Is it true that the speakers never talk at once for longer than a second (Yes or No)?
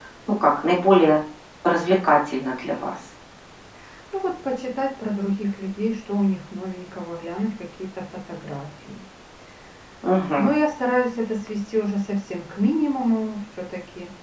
Yes